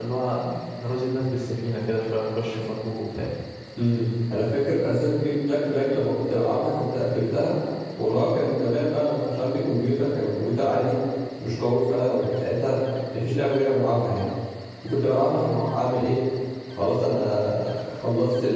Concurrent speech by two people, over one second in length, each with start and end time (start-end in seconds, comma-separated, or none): none